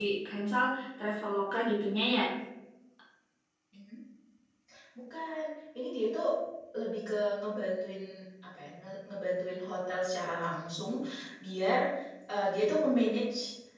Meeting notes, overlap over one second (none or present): none